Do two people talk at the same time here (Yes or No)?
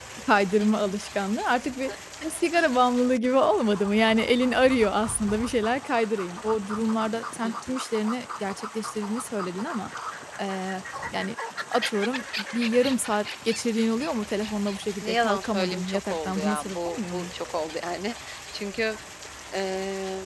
Yes